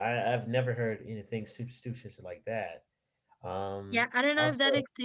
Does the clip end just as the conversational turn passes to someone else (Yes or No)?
Yes